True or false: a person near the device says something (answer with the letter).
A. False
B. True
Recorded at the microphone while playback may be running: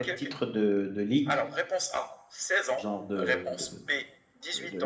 B